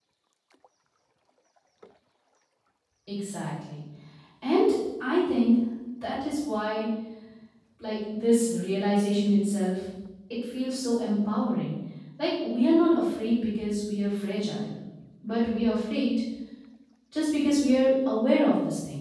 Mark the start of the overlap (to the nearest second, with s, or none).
none